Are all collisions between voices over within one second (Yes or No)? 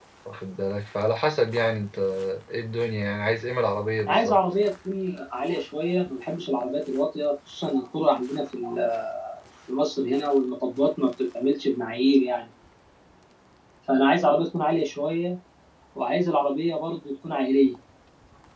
Yes